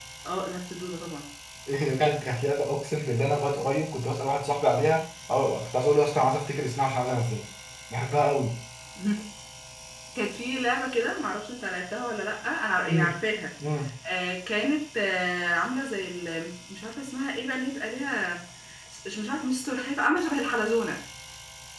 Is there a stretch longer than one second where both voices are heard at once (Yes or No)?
No